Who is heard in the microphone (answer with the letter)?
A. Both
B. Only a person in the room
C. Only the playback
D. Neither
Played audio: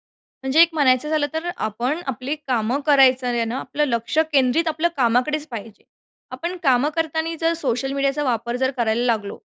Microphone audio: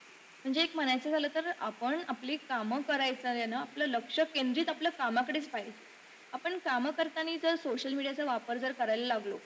C